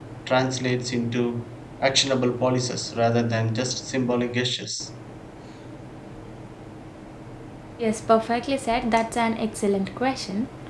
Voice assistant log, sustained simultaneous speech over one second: none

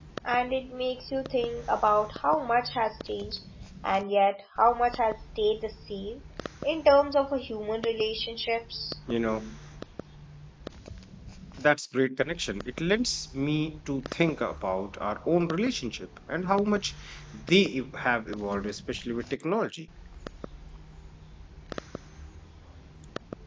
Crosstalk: none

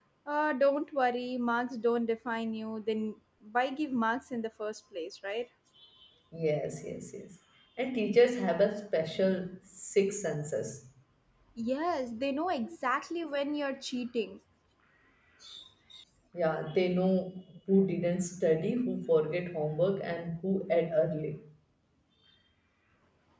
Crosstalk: none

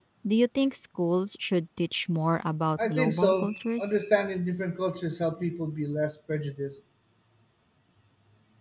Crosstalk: present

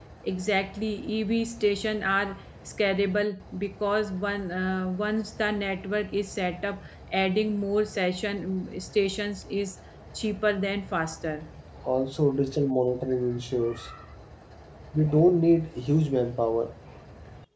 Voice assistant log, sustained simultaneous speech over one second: none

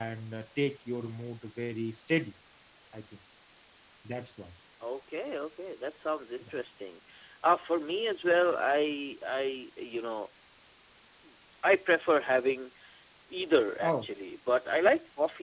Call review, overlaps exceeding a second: none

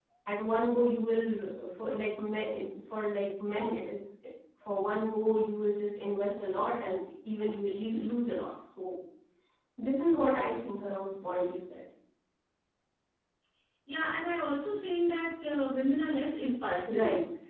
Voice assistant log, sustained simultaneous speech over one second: none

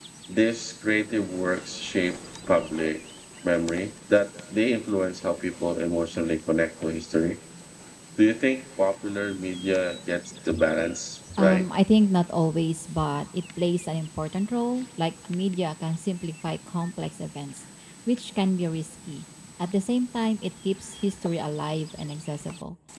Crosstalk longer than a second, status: none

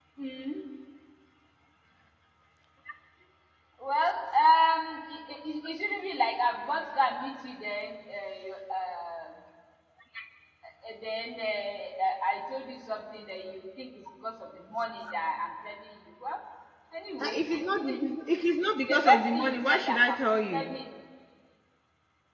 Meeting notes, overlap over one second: present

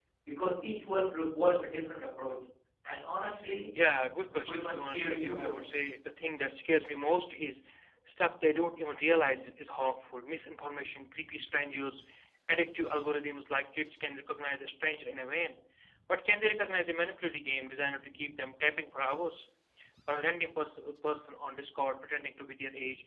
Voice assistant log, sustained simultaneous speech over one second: present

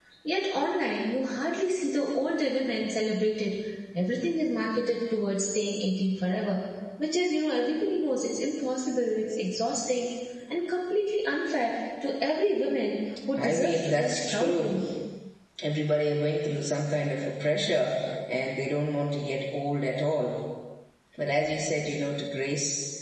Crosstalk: present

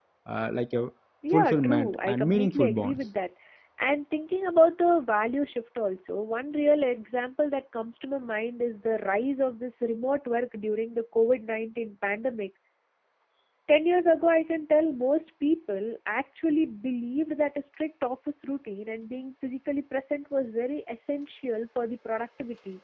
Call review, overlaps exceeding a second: present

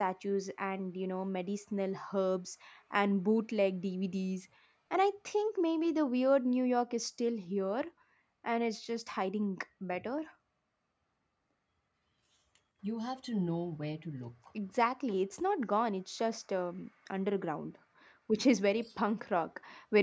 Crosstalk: none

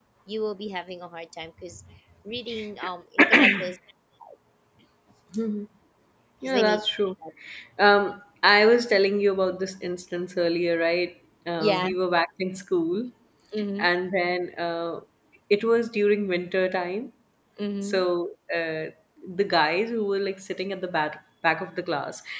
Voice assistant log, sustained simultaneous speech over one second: none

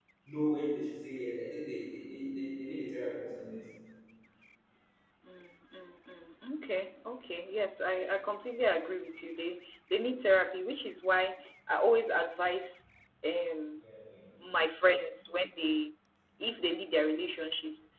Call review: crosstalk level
none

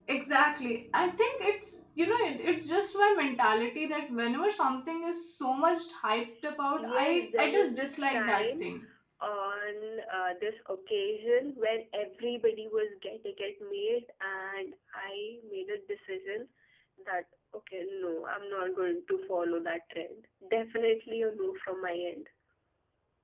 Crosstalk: present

